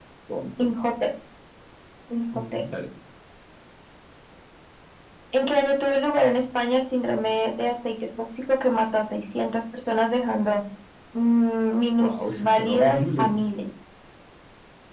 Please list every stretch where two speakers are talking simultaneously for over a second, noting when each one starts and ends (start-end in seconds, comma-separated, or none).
12.0-13.3